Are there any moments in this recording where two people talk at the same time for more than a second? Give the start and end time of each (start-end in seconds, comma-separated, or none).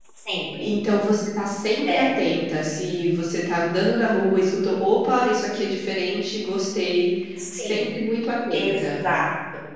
none